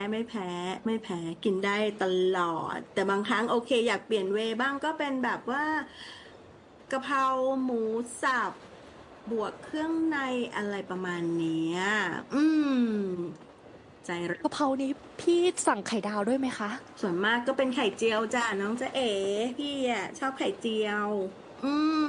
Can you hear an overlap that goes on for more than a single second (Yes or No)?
No